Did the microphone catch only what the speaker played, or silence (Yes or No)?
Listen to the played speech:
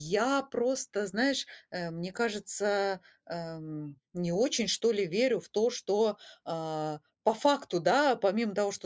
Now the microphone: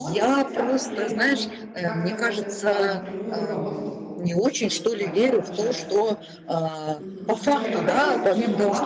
No